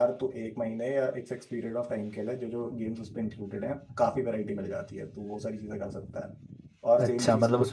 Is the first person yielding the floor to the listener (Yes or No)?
Yes